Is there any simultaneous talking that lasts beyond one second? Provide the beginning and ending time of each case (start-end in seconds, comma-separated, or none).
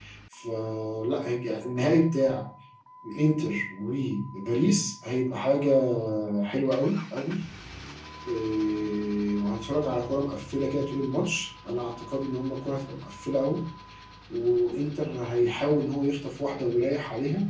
none